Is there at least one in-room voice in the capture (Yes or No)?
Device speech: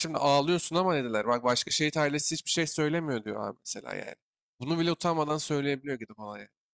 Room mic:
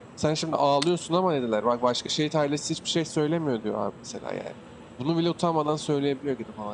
No